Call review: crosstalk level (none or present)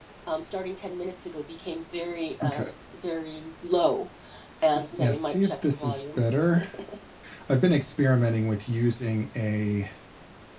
present